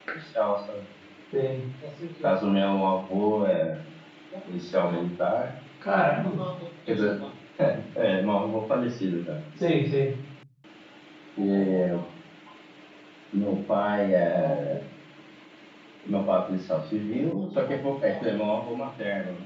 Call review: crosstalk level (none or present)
none